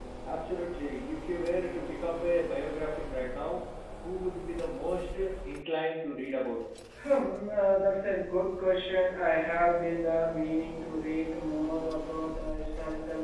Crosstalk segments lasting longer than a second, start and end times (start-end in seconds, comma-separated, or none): none